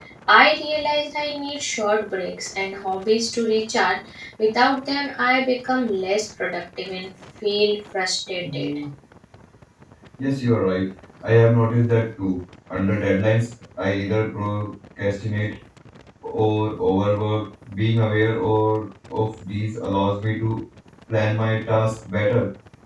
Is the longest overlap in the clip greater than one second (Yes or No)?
No